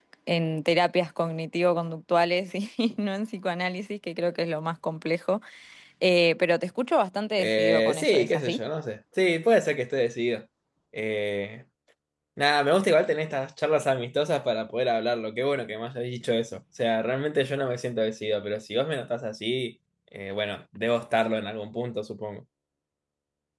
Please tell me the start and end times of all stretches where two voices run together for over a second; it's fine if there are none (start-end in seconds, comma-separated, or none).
7.4-8.6